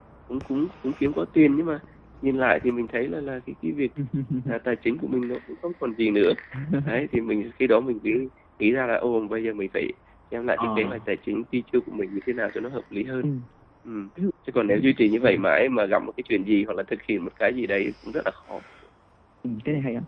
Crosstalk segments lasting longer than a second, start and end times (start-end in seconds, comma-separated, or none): none